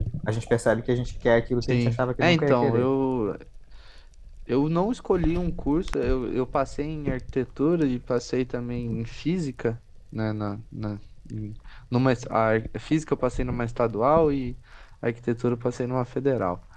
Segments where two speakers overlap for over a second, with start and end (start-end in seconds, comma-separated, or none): 1.6-2.9